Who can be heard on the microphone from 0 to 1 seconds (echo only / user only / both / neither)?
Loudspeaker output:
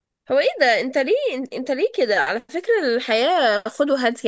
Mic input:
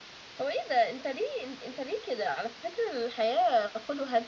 echo only